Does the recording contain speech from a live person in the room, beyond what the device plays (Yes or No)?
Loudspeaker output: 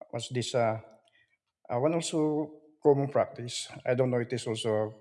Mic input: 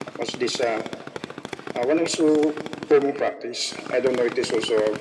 No